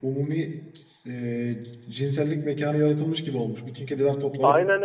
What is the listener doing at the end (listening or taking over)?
taking over